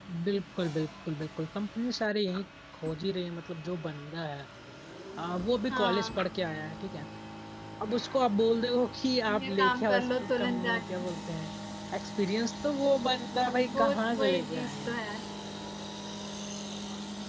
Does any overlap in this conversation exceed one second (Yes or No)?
Yes